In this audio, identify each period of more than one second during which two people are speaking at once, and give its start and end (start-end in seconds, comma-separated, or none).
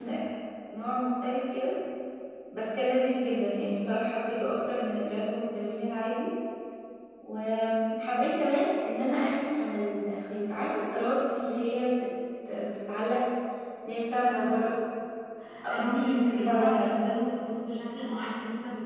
15.7-16.9